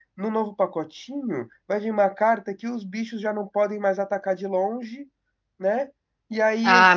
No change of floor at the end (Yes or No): No